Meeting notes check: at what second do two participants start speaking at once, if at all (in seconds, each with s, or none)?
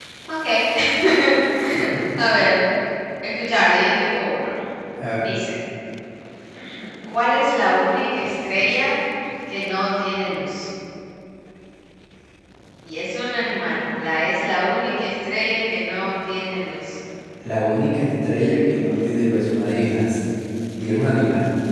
none